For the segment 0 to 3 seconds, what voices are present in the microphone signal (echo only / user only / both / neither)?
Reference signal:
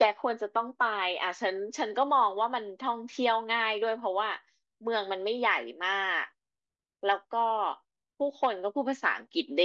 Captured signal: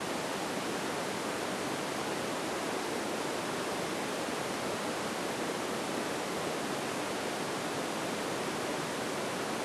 neither